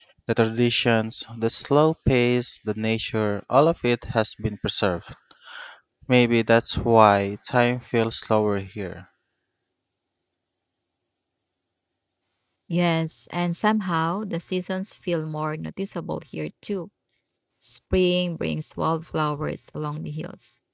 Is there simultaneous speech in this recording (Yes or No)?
No